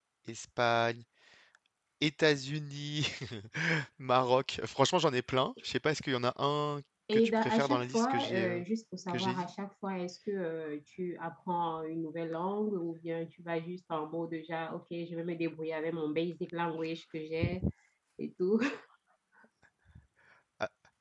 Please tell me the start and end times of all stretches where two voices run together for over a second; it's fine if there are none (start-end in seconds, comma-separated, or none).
7.1-8.6